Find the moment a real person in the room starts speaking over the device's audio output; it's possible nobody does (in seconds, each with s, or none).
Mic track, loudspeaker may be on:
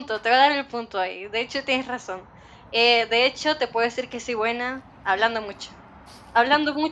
none